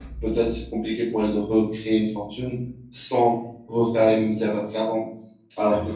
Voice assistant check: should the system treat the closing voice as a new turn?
No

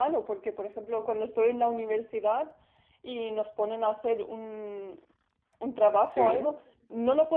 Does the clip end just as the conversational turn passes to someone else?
No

